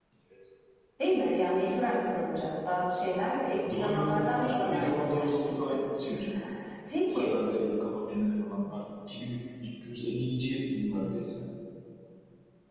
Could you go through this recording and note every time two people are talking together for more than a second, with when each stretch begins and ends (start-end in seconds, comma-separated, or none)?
3.5-5.3